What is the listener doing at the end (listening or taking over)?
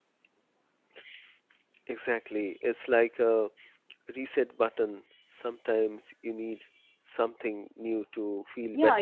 taking over